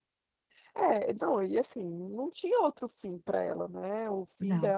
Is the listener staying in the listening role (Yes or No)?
Yes